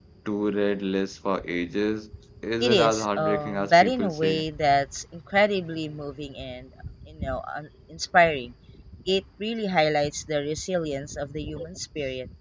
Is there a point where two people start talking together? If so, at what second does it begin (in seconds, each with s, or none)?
2.6 s